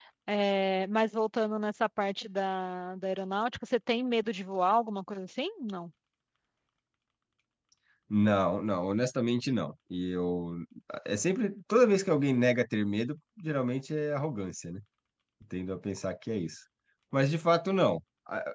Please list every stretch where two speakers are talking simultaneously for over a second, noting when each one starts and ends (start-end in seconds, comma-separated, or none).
none